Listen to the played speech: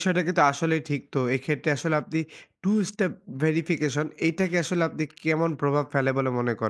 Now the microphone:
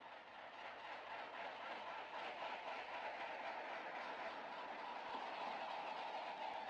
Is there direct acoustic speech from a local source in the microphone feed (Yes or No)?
No